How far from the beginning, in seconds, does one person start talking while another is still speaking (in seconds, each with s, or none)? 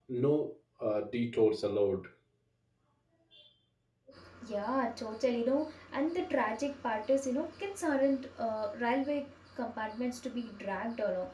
none